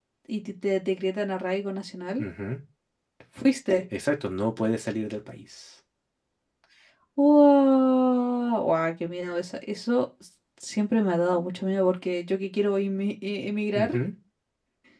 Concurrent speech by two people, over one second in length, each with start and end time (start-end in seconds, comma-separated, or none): none